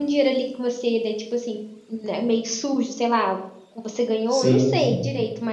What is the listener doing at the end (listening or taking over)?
listening